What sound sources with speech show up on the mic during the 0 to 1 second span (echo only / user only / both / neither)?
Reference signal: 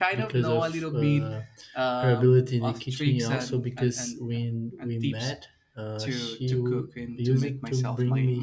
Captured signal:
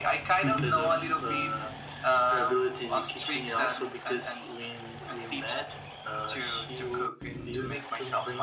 both